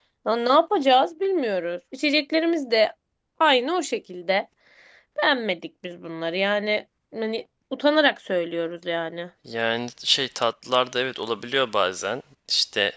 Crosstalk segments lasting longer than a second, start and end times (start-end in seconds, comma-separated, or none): none